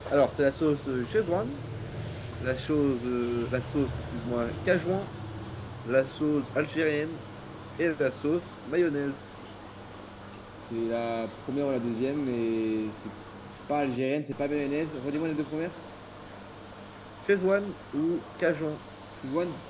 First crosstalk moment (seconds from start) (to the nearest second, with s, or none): none